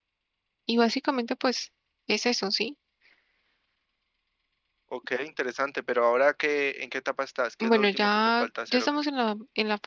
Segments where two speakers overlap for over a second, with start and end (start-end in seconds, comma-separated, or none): 7.6-9.0